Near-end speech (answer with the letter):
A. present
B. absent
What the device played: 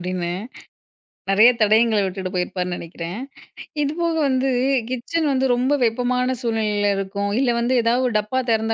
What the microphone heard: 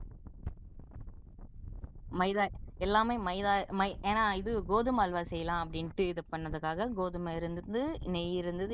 A